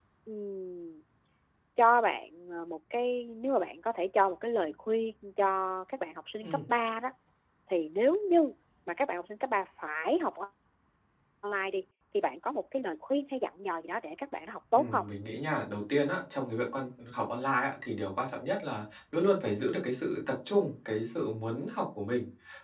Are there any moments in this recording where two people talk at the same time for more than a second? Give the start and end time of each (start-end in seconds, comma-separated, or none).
none